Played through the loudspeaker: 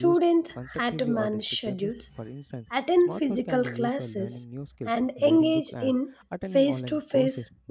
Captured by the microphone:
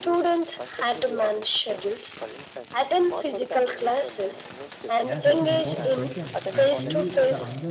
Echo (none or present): present